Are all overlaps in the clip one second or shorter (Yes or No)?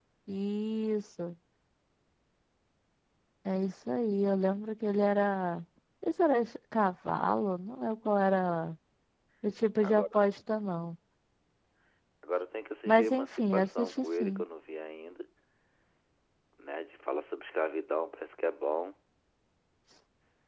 No